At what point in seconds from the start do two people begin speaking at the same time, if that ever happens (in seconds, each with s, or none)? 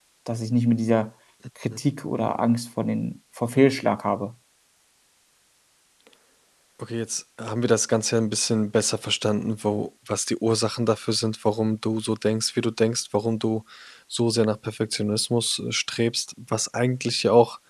none